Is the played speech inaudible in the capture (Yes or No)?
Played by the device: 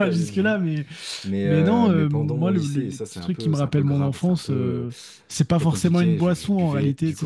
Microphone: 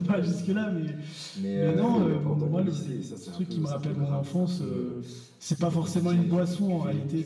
No